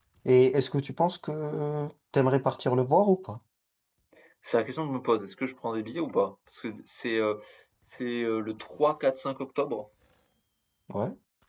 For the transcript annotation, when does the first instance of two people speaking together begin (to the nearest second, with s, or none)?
none